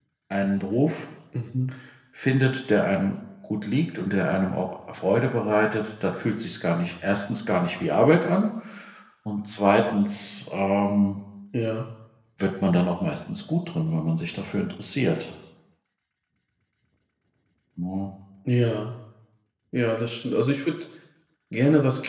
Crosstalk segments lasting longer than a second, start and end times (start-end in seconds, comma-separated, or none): none